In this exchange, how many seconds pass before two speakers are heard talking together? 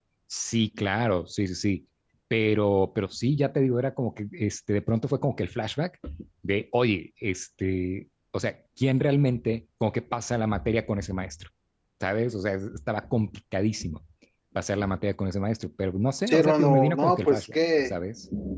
16 s

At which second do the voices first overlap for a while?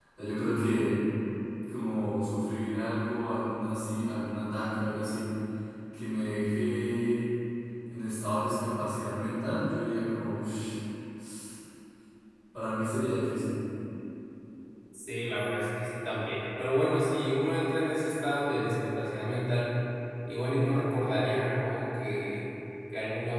none

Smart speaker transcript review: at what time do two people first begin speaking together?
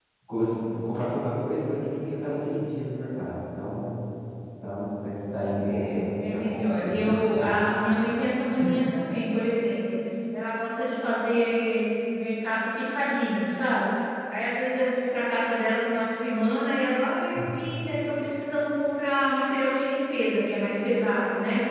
6 s

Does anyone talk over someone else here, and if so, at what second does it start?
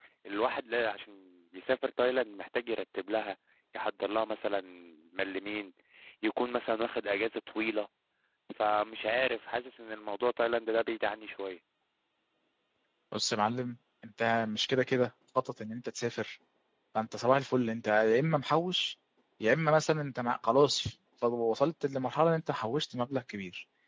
none

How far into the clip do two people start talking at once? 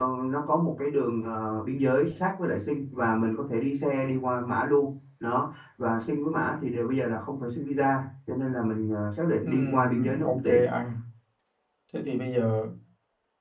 9 s

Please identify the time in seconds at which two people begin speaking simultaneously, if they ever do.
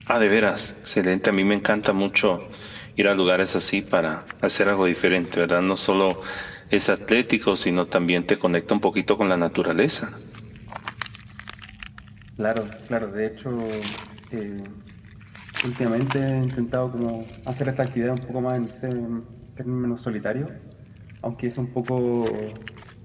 none

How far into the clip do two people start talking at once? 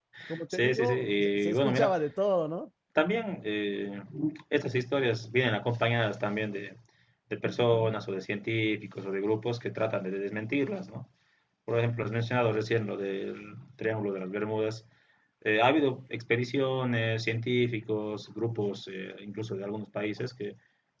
1 s

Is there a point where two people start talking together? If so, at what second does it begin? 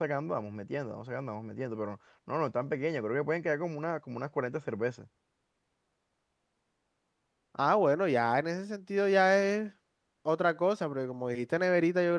none

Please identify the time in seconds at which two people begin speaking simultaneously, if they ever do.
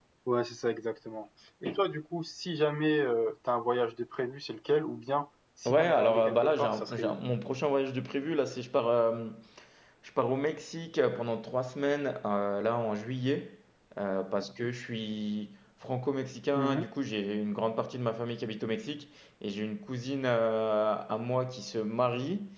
6 s

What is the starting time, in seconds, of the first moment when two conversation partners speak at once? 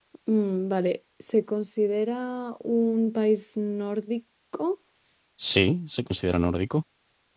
none

